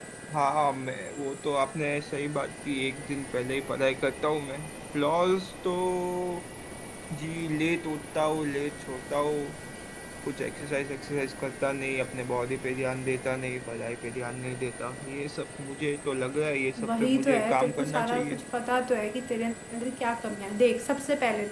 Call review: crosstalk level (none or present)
present